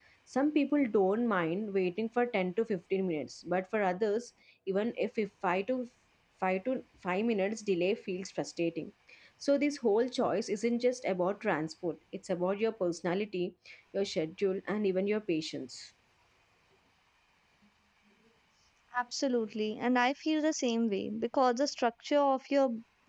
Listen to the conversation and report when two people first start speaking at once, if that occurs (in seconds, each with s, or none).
none